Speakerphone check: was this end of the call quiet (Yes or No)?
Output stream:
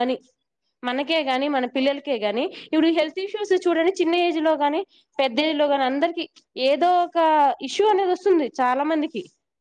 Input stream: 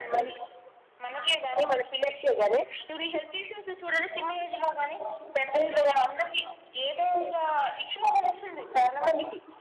Yes